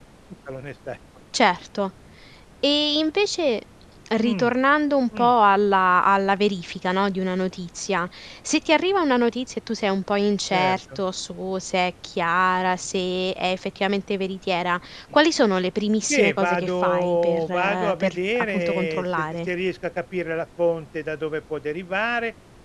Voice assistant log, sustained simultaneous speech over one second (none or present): present